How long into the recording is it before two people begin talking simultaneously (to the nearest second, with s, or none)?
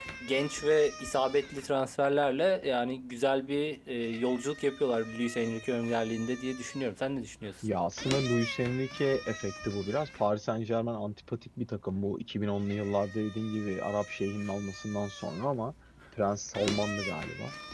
none